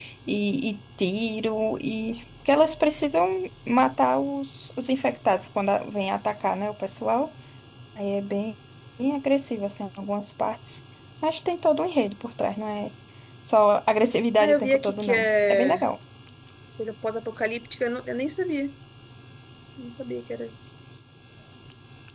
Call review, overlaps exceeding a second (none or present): present